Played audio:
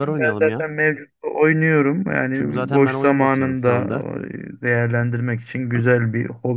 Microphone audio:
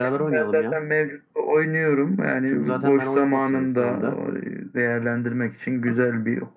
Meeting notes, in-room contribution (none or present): none